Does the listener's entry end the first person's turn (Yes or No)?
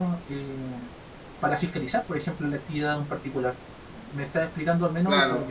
Yes